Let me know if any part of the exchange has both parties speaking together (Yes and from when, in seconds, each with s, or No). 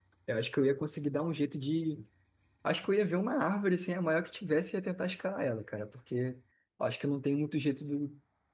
No